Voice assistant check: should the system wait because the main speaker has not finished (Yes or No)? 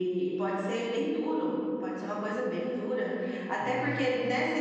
Yes